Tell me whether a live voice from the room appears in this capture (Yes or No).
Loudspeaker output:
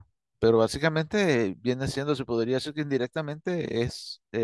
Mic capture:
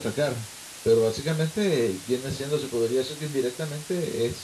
No